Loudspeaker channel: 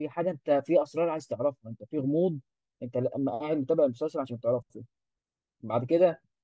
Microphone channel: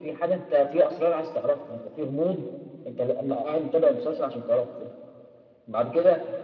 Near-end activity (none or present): none